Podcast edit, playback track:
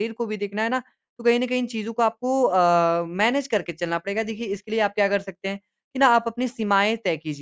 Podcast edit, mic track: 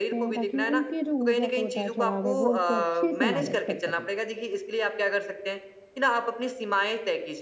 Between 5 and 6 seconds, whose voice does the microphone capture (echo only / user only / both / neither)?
echo only